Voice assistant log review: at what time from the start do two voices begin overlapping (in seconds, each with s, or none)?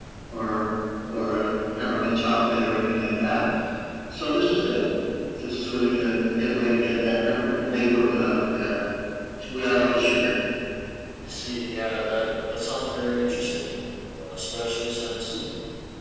none